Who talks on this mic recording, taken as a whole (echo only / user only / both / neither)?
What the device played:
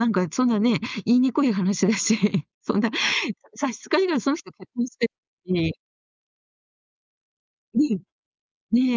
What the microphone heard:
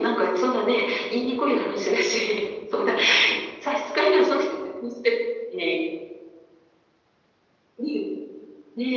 echo only